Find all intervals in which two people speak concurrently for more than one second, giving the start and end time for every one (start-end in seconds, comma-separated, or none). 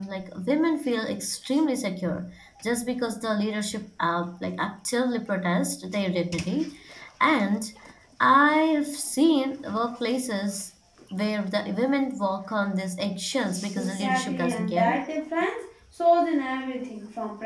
13.8-15.0